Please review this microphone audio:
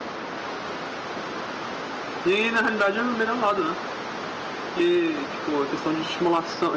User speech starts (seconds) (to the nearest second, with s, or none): 2 s